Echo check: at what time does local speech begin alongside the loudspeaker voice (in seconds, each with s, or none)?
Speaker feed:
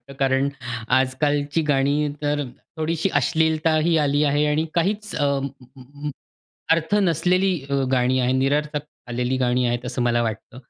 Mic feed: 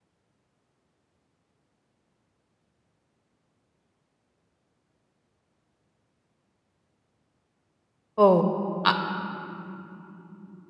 8.2 s